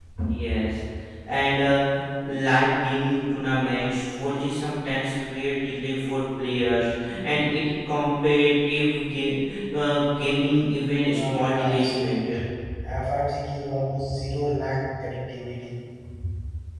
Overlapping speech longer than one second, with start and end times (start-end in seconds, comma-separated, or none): 11.1-12.4